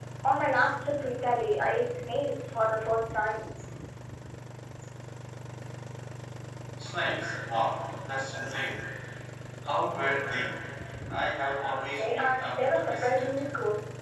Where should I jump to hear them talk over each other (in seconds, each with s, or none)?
11.9 s